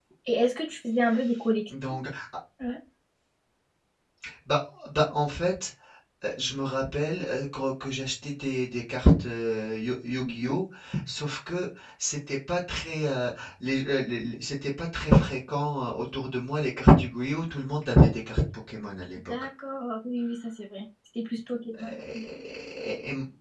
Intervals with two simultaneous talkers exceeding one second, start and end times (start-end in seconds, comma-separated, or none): none